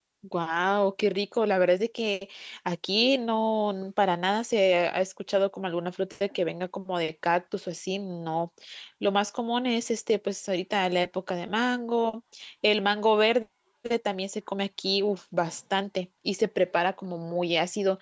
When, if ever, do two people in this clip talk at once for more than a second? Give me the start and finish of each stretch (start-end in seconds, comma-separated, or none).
none